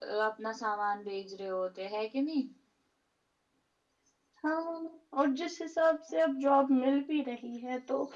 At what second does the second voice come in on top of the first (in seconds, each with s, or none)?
none